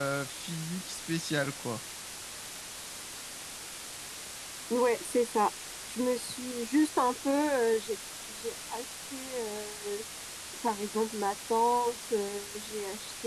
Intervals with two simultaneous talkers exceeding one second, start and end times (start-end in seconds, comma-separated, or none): none